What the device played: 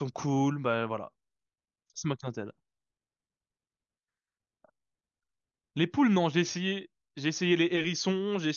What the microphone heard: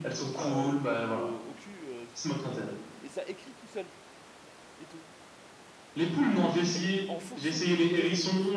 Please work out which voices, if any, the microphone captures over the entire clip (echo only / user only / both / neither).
both